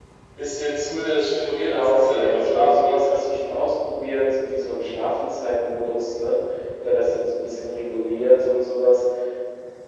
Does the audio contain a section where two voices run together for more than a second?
Yes, from 1.7 s

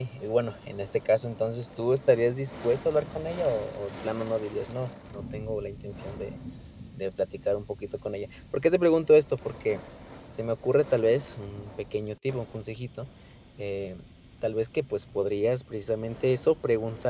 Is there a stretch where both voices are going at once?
No

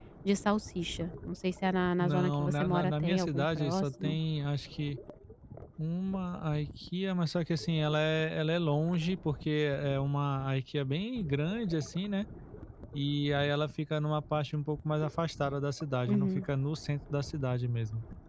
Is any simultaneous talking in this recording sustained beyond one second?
Yes, from 2.0 s

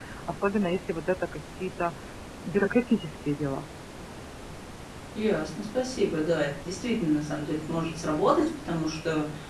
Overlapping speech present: No

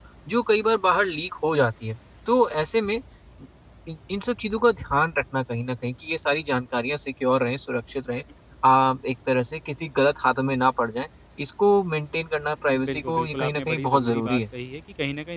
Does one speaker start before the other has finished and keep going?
Yes, from 12.7 s

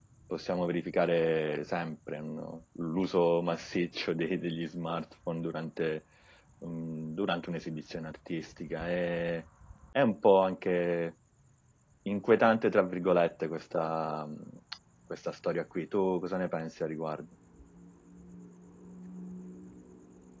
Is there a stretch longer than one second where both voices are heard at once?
No

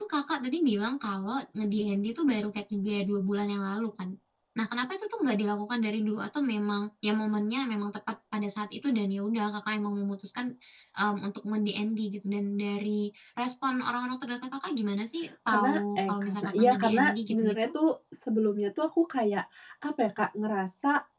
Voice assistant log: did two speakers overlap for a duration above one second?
Yes, from 15.5 s

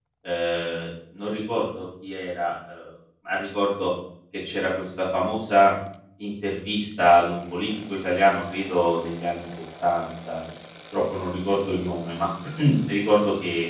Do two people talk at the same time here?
No

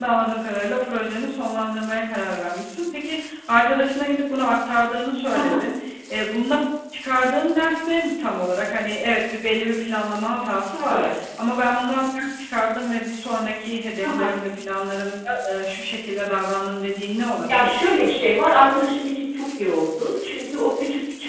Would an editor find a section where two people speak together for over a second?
No

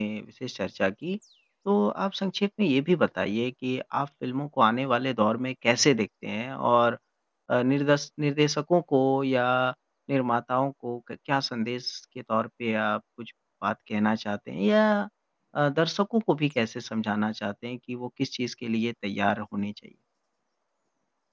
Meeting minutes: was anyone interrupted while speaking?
No

